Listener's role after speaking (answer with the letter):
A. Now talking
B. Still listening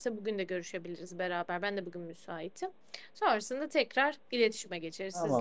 A